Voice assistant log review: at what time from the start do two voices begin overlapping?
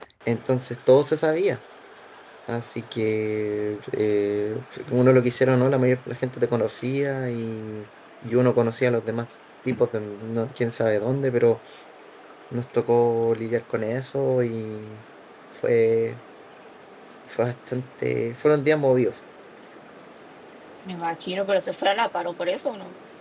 none

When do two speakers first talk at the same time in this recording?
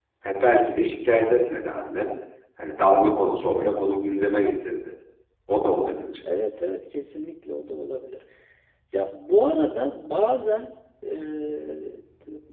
none

